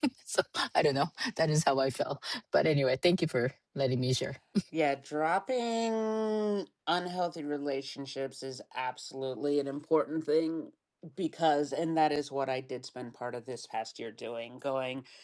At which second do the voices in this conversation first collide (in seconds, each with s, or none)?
none